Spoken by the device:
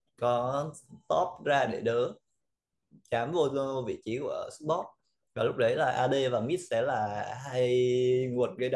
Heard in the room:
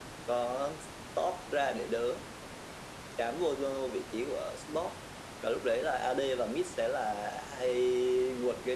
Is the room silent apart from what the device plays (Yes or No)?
Yes